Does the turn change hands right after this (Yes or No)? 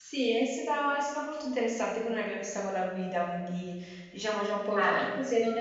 No